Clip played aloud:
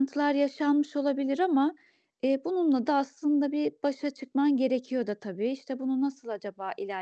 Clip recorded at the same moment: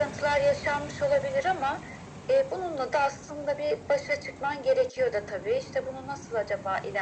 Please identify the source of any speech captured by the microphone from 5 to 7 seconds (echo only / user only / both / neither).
echo only